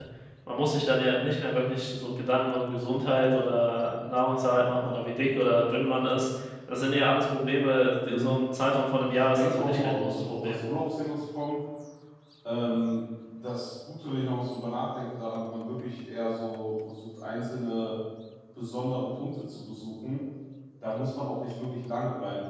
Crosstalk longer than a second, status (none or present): present